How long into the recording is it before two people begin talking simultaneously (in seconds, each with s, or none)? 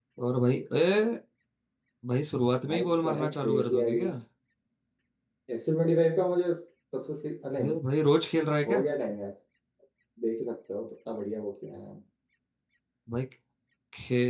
2.7 s